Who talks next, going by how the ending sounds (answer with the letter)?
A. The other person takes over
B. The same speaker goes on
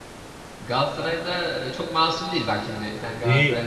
A